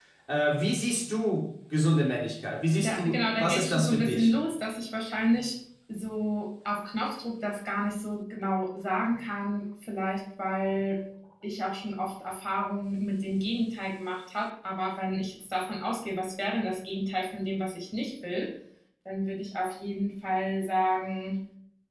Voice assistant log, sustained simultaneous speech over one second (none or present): present